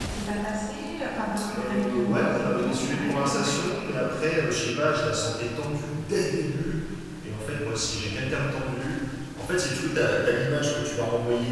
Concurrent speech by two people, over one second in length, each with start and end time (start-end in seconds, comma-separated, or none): 1.6-3.7